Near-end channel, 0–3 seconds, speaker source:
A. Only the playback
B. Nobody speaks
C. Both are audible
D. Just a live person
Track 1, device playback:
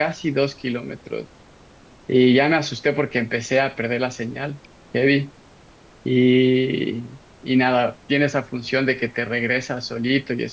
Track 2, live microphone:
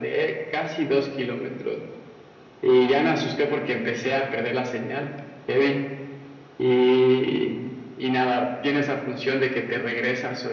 A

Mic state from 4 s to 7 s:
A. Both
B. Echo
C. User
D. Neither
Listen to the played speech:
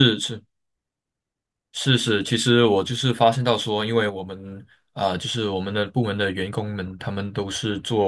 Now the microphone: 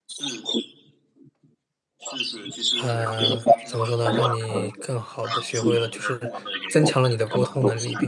A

